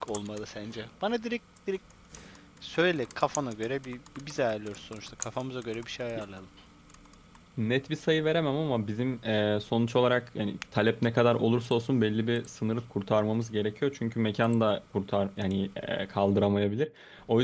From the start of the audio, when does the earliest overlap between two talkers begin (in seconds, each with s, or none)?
none